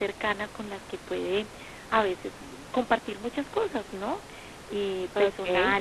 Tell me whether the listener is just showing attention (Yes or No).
Yes